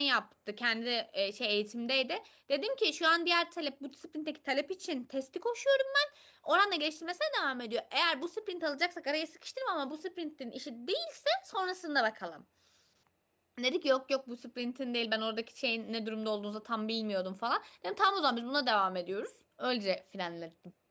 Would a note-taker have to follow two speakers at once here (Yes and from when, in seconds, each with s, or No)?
No